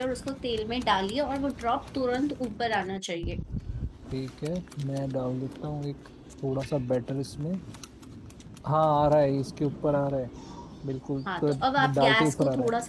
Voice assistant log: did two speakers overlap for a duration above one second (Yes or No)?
Yes